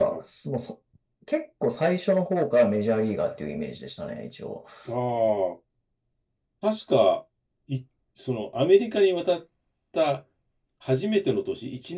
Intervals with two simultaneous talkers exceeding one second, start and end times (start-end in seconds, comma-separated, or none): none